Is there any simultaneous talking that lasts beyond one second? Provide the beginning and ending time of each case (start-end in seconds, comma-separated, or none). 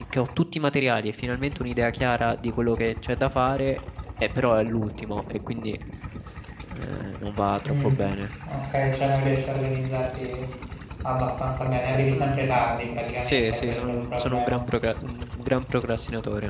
13.2-14.6